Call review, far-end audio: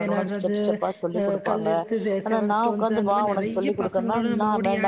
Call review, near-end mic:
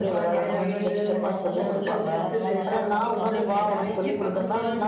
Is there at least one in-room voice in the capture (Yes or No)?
Yes